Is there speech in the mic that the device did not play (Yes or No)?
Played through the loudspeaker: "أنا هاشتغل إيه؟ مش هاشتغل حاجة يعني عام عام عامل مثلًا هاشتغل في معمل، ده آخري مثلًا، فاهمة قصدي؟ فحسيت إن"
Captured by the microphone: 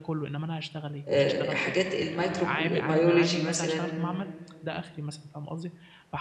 Yes